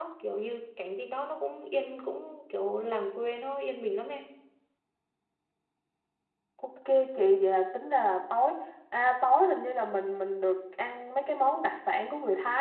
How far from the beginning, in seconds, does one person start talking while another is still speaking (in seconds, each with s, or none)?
none